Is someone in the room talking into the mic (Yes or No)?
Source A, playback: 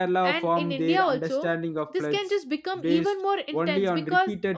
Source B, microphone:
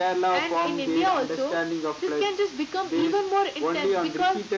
No